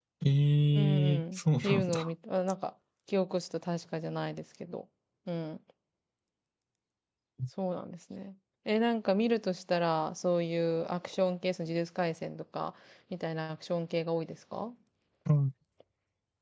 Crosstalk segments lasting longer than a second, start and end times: 0.8-2.1

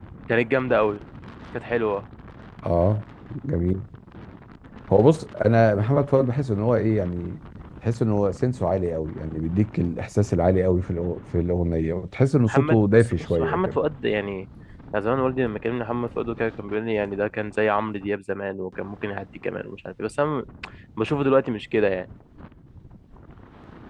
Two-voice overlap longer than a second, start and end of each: 12.5-13.8

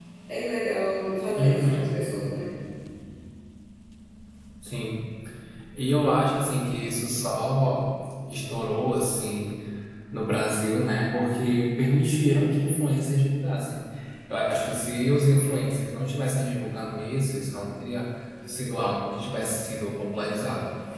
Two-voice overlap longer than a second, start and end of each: none

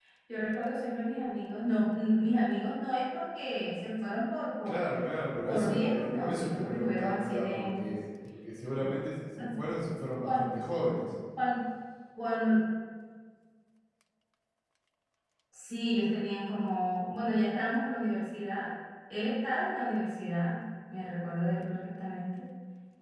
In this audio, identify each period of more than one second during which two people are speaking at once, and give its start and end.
5.5-8.0

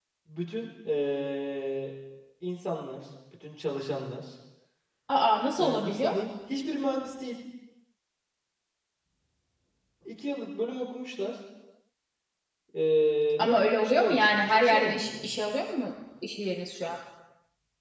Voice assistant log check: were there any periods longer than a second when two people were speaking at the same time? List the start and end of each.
13.4-15.3

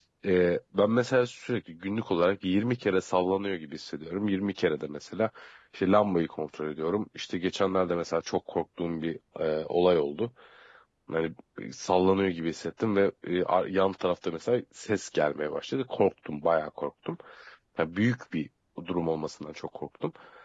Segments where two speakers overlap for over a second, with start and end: none

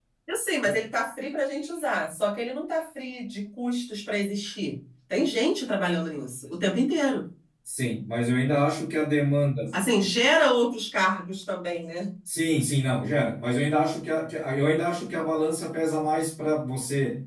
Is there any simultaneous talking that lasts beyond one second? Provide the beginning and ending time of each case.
none

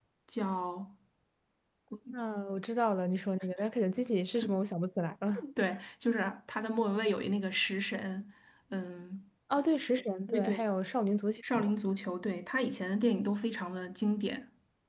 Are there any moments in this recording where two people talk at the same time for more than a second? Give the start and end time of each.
none

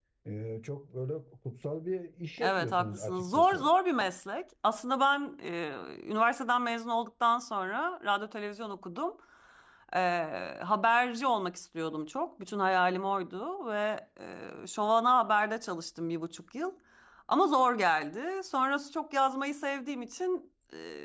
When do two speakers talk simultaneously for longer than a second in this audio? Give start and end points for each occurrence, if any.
2.4-3.7

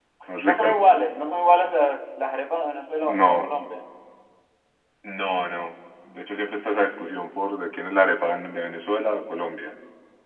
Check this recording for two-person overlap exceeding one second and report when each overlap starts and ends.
none

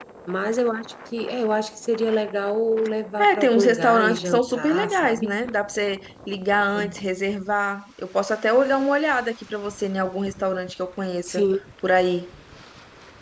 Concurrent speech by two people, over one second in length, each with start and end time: 3.2-5.3

